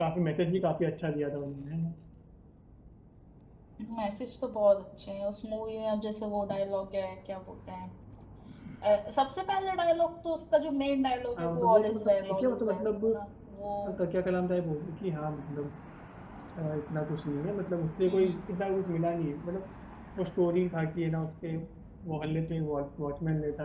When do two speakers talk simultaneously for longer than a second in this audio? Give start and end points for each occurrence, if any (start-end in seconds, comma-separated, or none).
11.4-13.0